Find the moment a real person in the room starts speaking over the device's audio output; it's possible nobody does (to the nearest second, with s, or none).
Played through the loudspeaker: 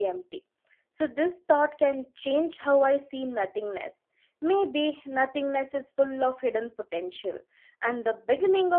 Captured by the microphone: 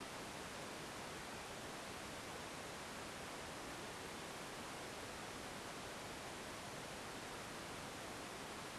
none